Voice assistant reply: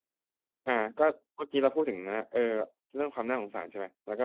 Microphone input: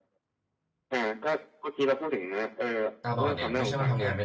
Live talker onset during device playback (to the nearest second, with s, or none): 3 s